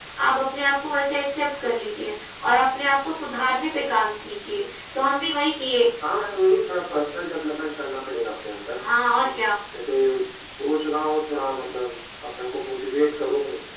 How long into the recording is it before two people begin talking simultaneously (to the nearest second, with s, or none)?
none